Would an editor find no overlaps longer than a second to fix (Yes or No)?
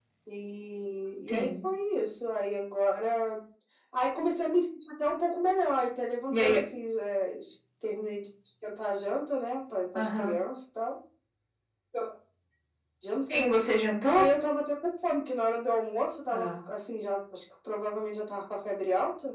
Yes